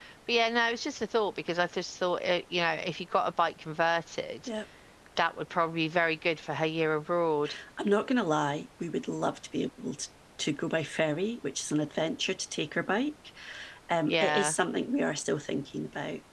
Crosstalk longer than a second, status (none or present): none